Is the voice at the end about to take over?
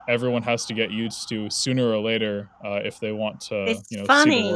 Yes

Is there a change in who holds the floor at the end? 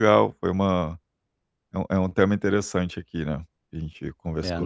Yes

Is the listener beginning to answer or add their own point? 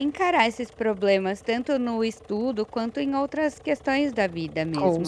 Yes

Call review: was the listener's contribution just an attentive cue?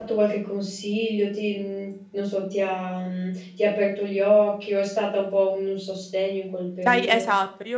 No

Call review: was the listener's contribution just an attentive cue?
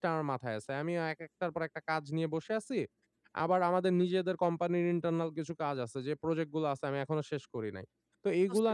Yes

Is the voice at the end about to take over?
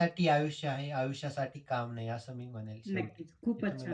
Yes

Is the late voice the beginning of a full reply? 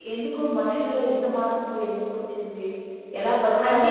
Yes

